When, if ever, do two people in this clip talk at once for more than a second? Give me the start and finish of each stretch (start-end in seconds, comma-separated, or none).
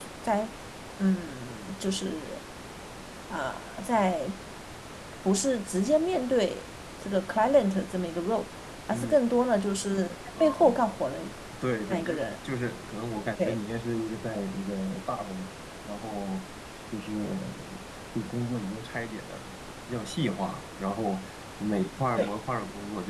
none